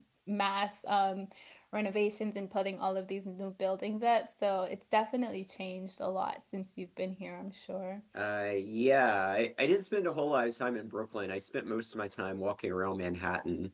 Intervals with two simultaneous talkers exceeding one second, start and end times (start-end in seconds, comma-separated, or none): none